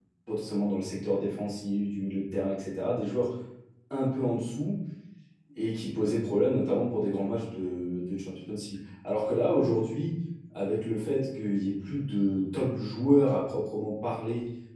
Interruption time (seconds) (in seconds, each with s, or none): none